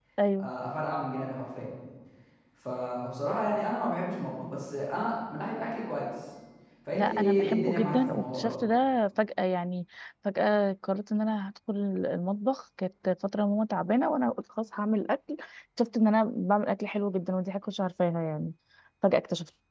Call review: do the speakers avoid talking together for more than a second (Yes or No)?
No